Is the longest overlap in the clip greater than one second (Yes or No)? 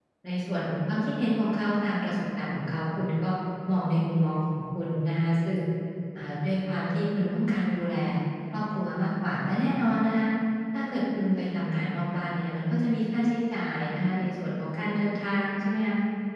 No